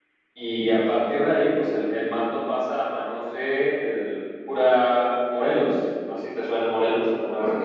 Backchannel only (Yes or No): No